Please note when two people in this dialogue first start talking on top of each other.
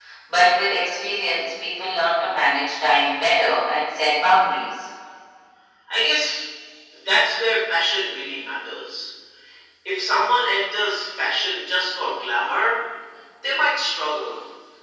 none

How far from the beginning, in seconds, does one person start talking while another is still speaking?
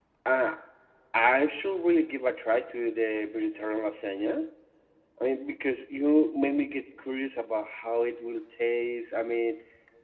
none

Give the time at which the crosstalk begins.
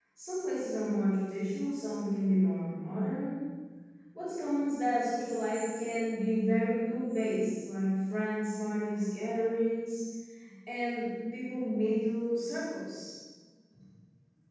none

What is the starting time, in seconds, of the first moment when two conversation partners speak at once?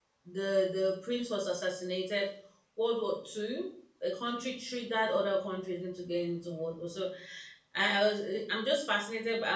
none

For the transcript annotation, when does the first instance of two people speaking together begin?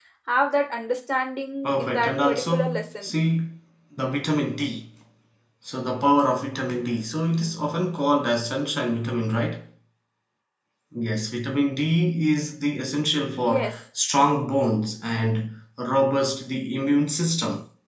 2 s

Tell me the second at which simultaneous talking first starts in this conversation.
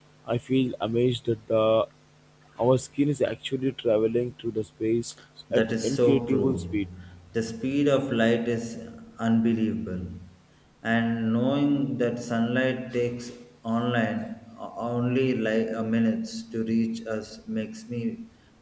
6 s

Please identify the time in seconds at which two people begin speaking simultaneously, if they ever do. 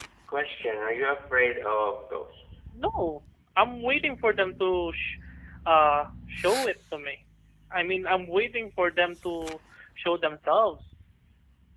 none

